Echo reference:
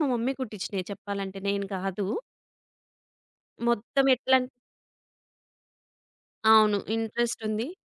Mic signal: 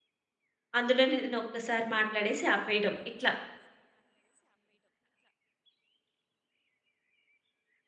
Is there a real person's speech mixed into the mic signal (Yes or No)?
Yes